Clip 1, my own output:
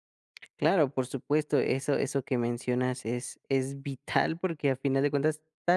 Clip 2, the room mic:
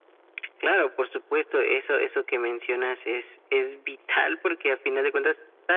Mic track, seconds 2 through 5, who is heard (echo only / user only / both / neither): echo only